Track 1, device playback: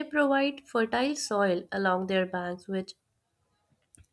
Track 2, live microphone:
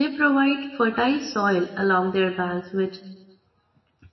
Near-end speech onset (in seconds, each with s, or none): none